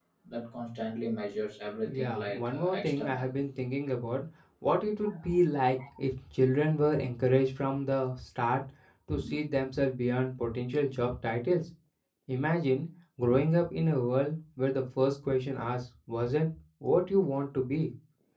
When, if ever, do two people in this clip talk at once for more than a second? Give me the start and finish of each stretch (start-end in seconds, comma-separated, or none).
2.0-3.3